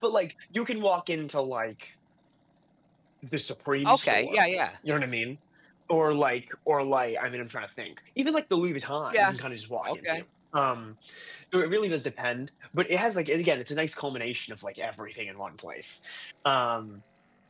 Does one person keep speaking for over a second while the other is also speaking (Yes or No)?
No